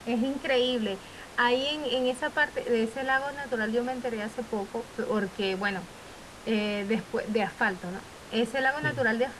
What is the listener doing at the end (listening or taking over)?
listening